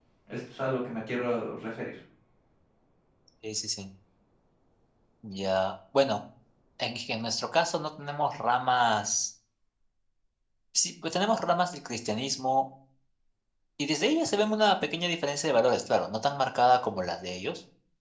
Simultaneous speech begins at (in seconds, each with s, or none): none